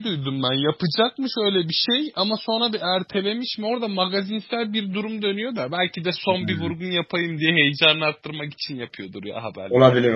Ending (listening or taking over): taking over